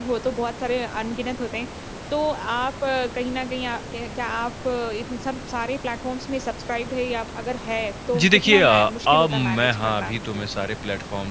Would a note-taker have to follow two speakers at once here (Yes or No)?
Yes